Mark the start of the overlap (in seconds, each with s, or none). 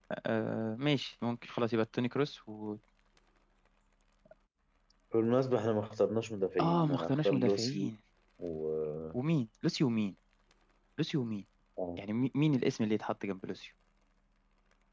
6.6 s